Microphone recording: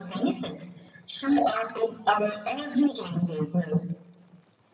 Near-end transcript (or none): none